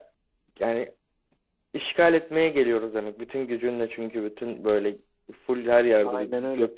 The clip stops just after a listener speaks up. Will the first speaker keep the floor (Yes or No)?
Yes